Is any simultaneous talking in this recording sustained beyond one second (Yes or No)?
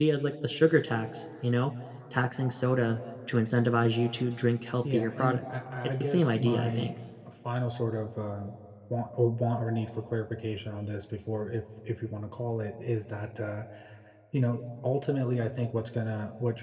Yes